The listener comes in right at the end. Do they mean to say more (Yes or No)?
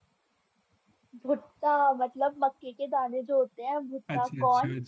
Yes